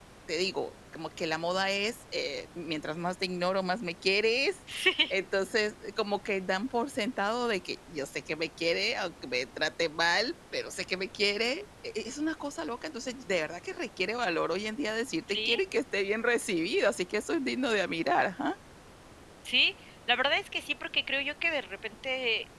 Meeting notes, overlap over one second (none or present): none